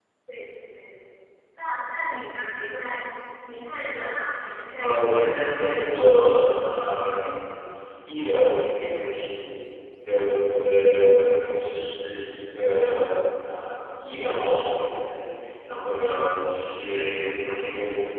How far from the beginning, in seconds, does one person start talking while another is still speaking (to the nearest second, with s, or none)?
5 s